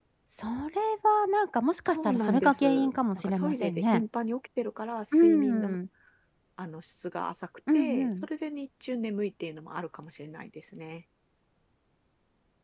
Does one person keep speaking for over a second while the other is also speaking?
Yes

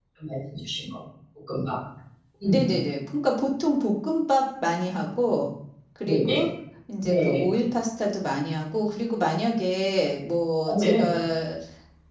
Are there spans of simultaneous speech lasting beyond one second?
No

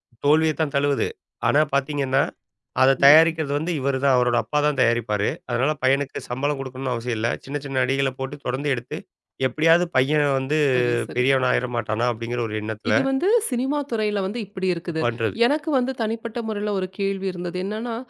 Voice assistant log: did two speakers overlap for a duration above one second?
No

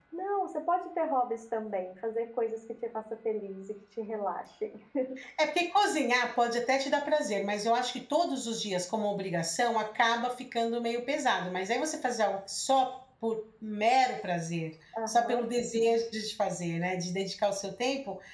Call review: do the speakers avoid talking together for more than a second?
Yes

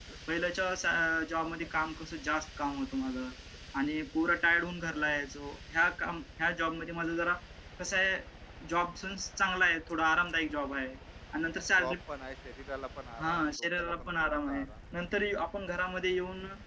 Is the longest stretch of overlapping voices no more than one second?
No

